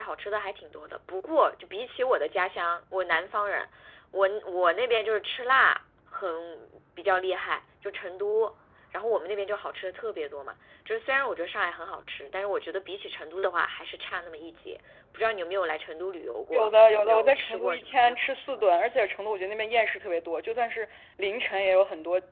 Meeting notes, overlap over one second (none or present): present